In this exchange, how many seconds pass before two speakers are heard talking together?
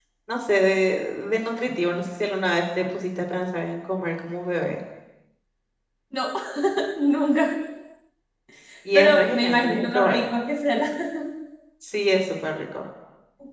8.9 s

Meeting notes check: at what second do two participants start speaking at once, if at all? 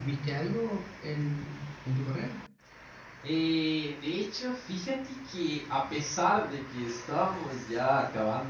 none

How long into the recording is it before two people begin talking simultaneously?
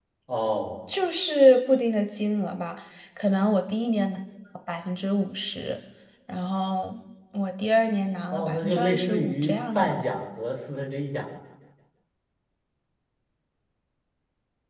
8.3 s

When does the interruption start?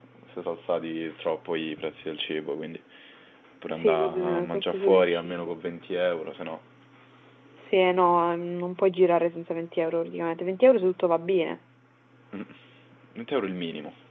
3.7 s

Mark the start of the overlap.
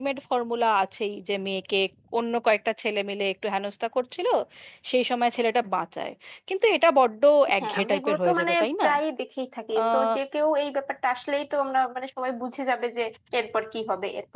7.6 s

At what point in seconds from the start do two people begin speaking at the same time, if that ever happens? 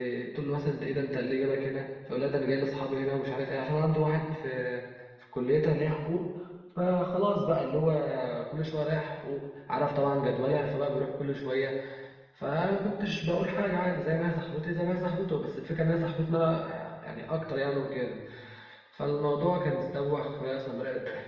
none

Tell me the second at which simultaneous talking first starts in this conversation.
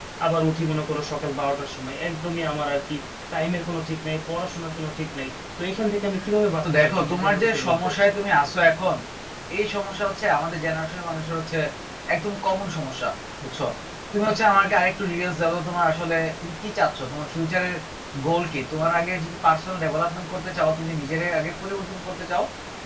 6.6 s

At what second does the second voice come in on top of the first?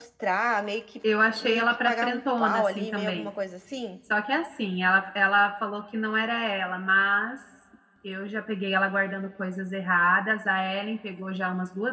1.4 s

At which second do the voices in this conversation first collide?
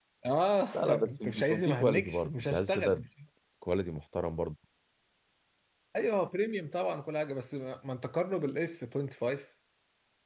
0.7 s

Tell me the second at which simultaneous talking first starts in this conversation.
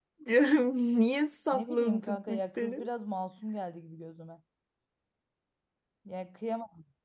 1.5 s

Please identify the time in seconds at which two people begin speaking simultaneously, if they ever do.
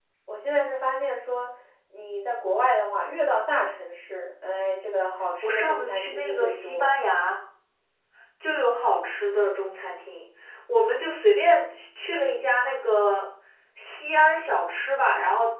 5.4 s

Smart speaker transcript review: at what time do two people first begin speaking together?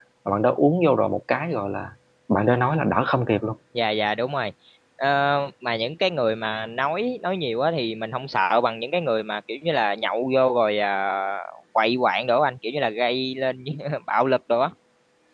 none

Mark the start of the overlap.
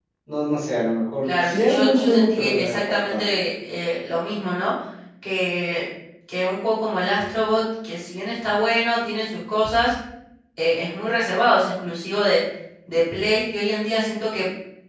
1.2 s

